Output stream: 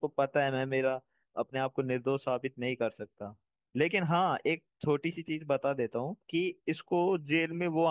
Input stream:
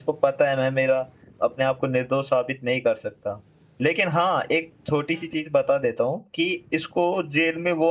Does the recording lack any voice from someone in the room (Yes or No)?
Yes